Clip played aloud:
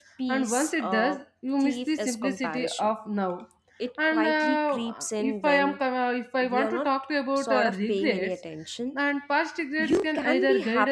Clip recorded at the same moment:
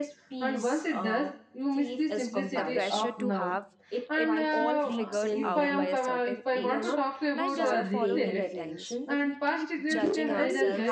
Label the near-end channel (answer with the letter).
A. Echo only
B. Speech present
B